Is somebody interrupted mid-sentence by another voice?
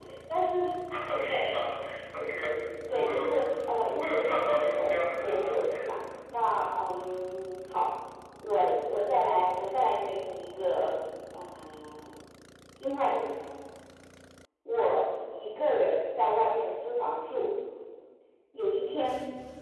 Yes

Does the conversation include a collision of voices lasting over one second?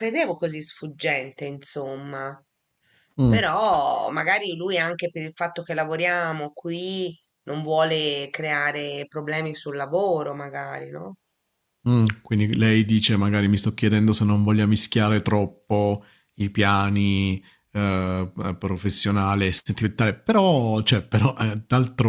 No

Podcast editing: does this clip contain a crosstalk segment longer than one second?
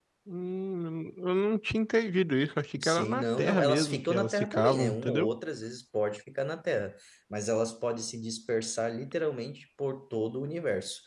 Yes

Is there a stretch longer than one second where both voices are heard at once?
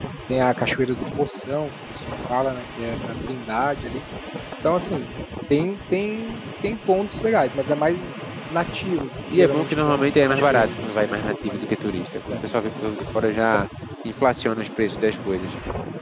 Yes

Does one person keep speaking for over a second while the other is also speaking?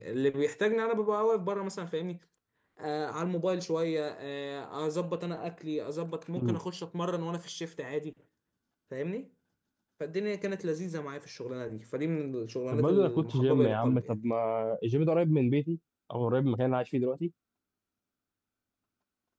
Yes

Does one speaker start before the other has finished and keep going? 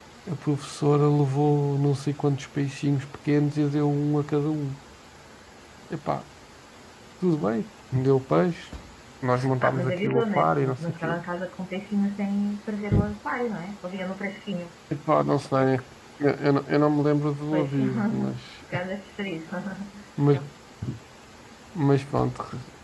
Yes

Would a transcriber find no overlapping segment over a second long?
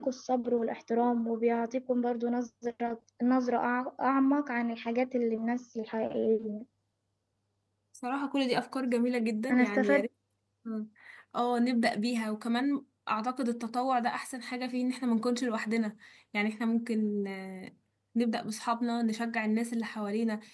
Yes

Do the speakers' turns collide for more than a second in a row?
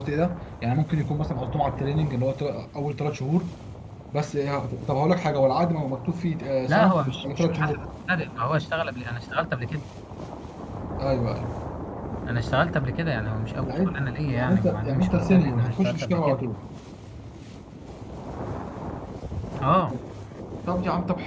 Yes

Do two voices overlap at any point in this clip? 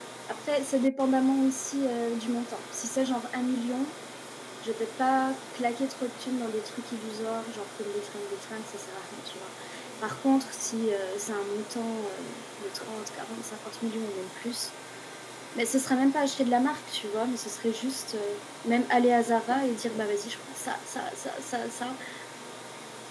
No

